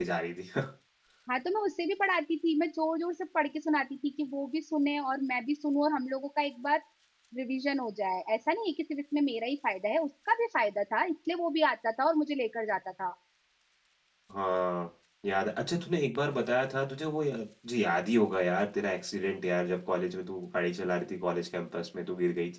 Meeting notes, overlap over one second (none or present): none